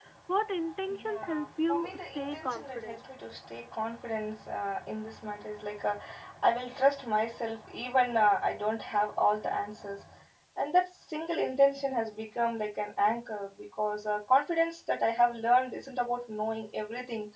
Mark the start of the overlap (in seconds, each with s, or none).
1.0 s